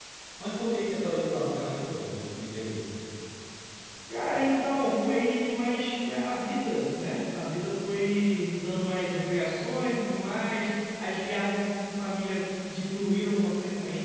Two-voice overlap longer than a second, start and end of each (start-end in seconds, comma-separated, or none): none